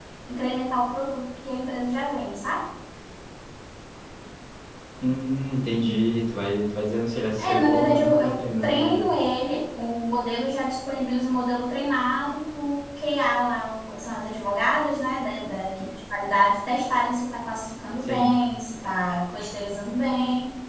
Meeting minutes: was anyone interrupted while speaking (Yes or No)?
Yes